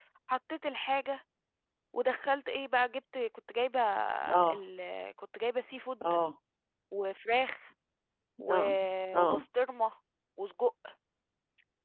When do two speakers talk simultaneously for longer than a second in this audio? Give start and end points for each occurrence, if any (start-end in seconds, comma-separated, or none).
none